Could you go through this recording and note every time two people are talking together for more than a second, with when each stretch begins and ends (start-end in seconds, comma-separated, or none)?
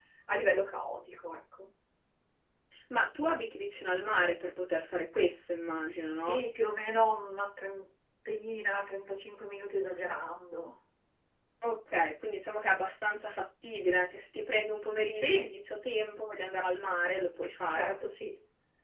none